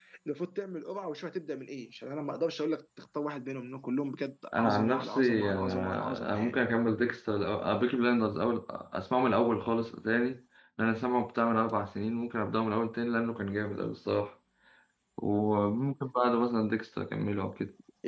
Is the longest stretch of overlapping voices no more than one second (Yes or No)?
No